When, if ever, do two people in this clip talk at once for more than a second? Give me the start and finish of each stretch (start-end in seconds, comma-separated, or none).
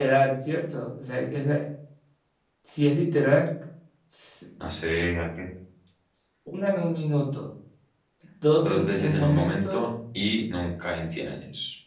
8.6-9.8